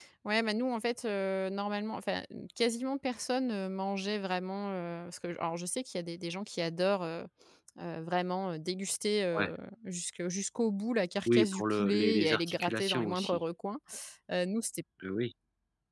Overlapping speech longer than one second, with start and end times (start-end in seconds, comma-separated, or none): 11.3-13.4